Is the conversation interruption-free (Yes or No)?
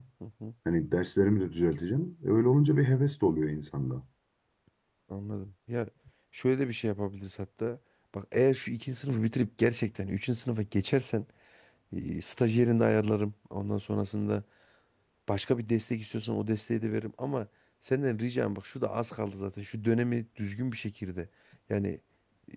Yes